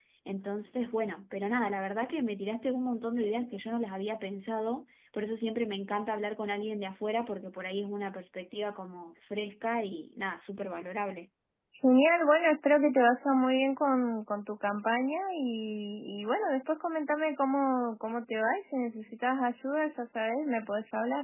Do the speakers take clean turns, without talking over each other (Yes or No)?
Yes